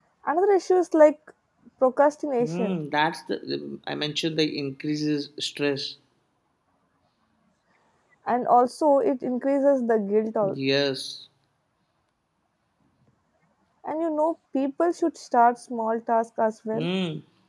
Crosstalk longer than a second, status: none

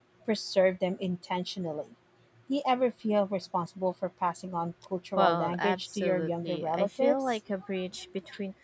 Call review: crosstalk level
present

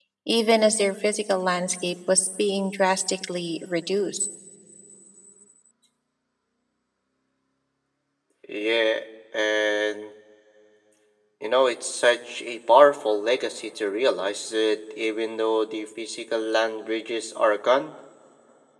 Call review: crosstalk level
none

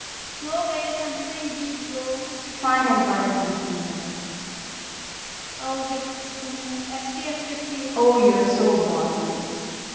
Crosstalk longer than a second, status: none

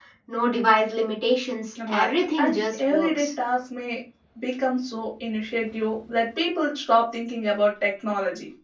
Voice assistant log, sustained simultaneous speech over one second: present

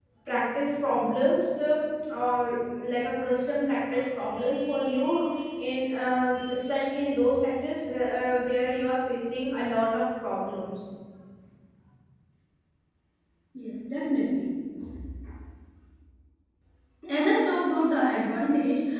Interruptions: none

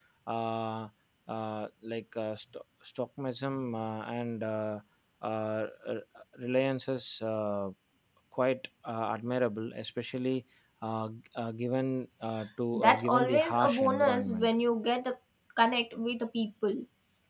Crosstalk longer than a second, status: present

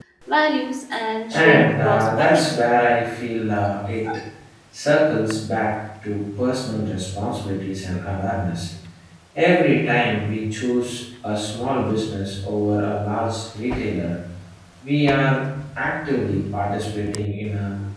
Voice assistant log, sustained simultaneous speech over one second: present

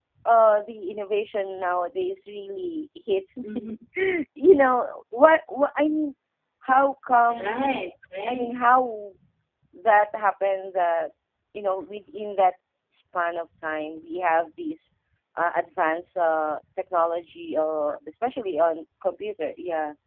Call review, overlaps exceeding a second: none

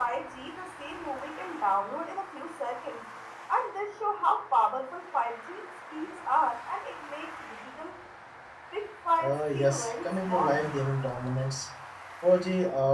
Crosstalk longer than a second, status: present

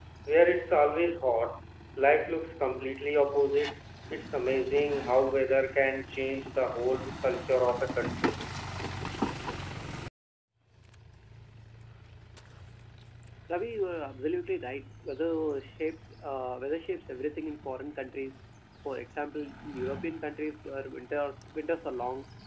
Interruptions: none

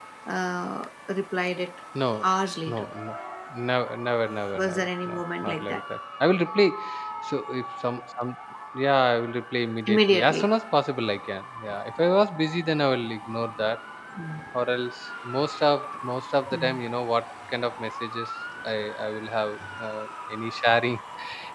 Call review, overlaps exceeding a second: present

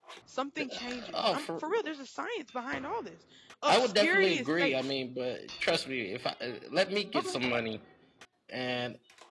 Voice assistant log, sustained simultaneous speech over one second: present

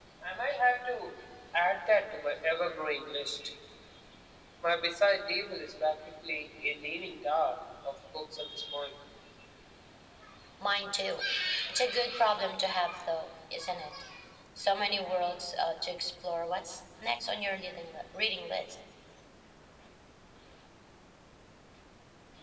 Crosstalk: none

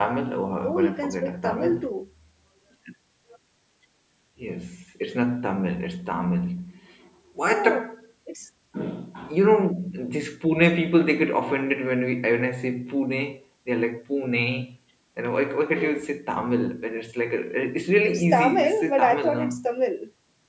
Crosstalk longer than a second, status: present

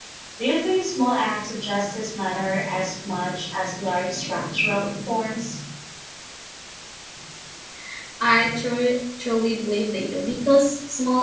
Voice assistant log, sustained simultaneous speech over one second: none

